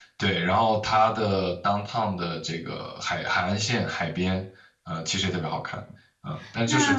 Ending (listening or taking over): taking over